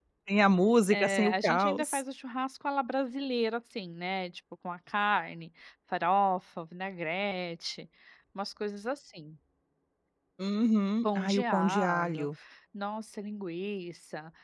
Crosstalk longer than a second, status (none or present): present